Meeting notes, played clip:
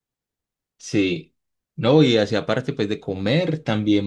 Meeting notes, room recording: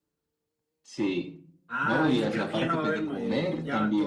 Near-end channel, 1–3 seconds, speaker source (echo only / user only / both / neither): both